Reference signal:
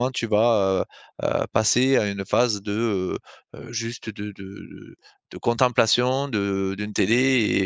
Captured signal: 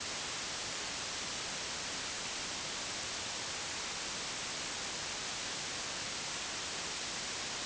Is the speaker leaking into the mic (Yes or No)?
No